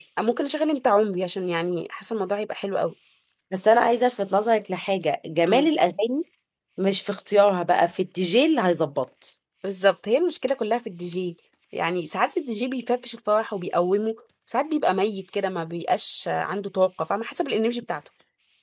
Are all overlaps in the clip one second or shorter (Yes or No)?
Yes